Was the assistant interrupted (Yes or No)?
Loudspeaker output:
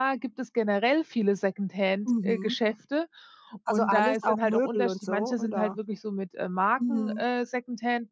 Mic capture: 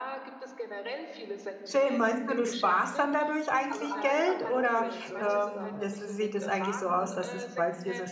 Yes